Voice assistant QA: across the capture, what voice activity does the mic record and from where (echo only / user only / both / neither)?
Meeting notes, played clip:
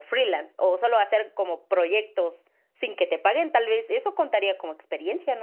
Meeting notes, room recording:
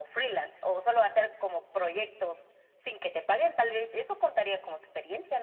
echo only